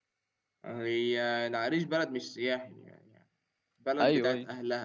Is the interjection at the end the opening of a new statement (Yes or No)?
No